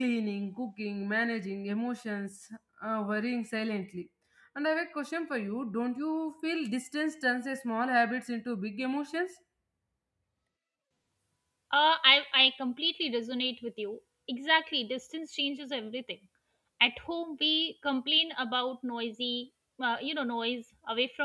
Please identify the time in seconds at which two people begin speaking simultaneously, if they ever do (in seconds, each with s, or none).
none